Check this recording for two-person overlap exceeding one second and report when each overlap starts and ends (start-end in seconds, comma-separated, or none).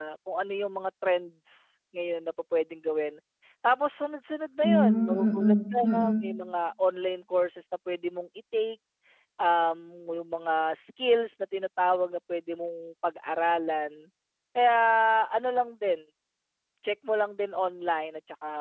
4.6-6.2